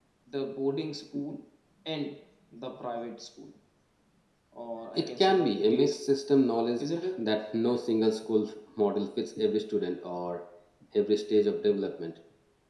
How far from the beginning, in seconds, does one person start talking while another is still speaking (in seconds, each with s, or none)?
5.0 s